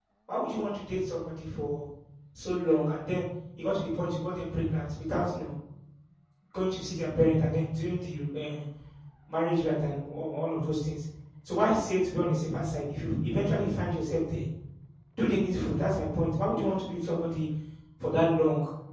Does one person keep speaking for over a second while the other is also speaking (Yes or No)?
No